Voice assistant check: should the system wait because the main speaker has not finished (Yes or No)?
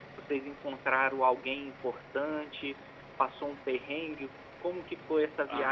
No